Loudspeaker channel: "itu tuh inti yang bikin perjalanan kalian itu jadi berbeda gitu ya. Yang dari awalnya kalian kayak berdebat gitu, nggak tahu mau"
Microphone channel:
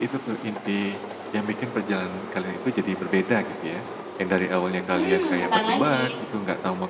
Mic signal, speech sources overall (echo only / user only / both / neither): both